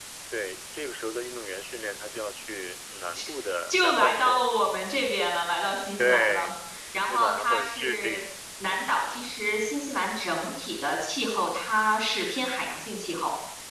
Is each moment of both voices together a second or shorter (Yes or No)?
No